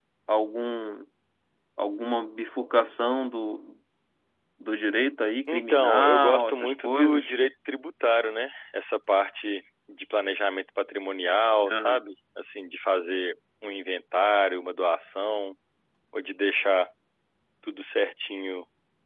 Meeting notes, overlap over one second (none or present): present